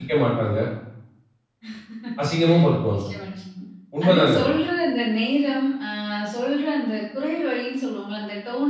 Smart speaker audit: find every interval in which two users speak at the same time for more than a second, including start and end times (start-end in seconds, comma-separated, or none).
none